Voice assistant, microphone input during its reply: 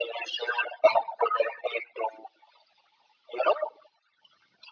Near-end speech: none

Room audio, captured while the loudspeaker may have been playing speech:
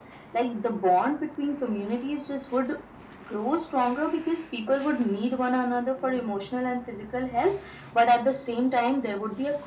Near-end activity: none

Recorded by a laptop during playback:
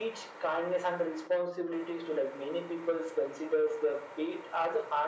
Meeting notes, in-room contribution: none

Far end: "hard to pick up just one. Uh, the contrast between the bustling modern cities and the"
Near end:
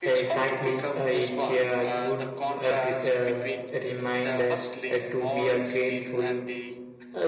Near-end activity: present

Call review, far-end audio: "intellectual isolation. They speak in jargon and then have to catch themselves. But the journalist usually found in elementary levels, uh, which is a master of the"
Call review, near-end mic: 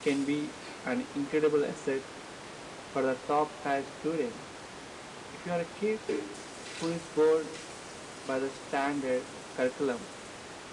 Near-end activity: present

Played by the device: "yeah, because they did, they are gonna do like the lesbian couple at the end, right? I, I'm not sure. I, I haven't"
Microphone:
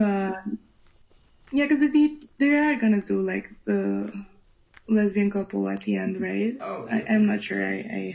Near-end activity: present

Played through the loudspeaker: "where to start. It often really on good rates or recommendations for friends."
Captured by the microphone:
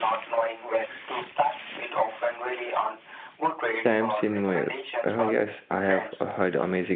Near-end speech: present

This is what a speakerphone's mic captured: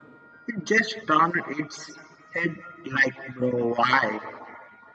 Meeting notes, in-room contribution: none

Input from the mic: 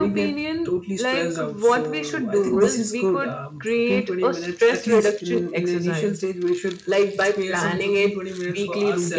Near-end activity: none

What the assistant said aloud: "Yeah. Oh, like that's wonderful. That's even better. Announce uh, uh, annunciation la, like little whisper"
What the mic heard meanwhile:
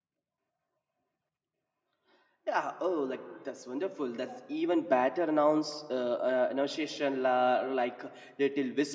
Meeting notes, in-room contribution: none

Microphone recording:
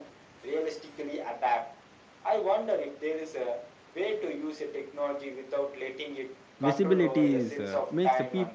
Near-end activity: present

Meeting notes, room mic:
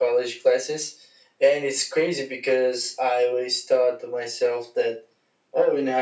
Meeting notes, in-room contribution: none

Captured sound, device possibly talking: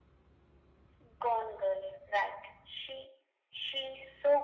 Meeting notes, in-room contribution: none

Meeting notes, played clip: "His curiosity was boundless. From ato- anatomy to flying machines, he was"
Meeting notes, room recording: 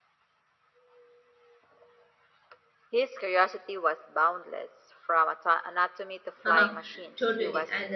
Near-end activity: present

